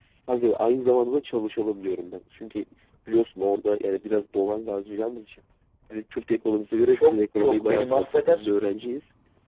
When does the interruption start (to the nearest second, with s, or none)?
7 s